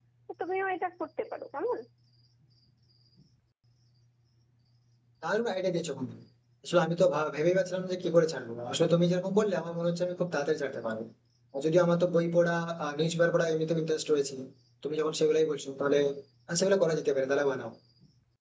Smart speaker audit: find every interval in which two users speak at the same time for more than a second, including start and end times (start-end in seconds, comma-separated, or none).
none